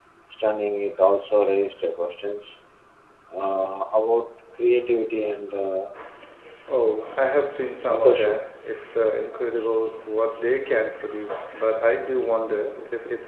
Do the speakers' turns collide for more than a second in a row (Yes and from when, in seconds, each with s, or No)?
No